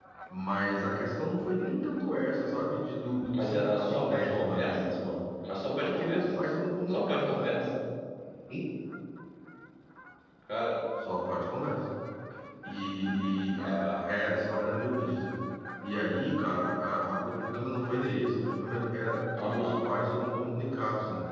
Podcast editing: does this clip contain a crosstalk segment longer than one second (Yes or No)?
Yes